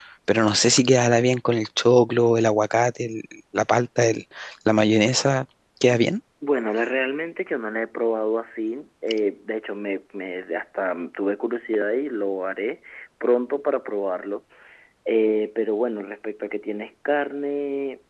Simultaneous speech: No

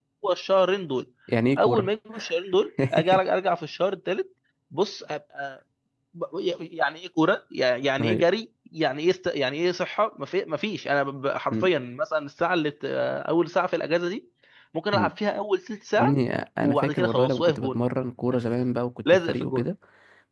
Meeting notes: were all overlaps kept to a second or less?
No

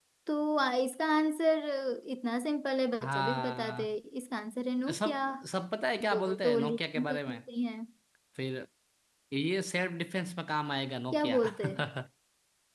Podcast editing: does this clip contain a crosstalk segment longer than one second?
Yes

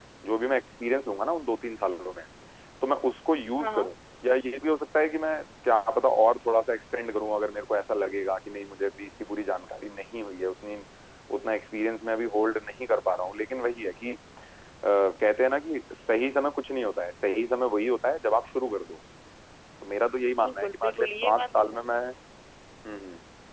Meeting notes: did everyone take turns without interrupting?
No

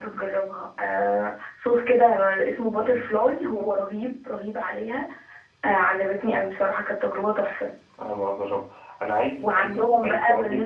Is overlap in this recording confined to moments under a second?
No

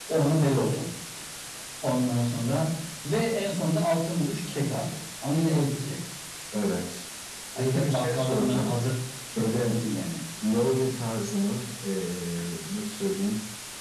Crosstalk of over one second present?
Yes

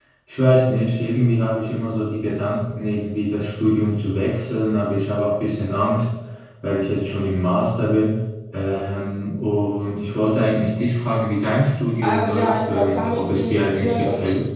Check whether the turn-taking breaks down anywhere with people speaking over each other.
Yes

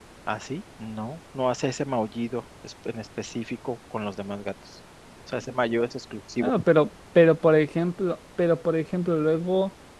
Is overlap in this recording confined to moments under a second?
Yes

